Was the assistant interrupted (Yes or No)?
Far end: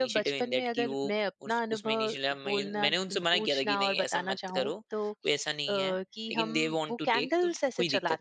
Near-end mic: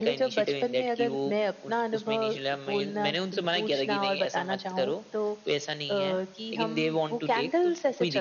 No